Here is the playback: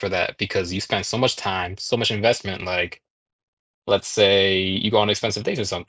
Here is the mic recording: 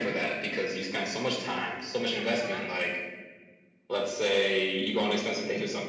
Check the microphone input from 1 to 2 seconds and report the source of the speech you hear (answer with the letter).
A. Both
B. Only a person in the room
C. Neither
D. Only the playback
D